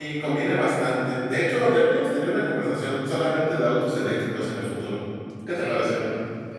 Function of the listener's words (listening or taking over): taking over